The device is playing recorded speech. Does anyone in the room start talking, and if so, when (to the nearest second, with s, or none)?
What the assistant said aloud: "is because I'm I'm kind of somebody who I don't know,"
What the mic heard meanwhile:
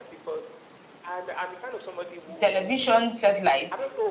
2 s